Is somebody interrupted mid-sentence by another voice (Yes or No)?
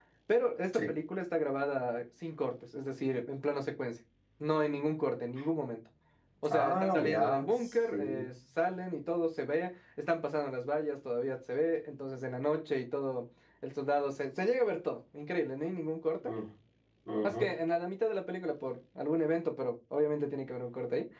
Yes